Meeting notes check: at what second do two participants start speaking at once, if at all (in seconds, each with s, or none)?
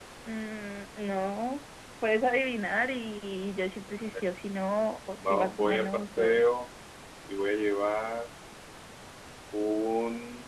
5.2 s